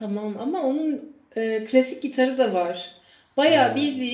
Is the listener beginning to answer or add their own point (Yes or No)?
No